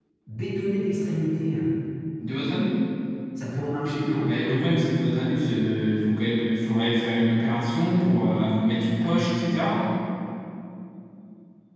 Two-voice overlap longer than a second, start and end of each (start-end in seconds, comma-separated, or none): none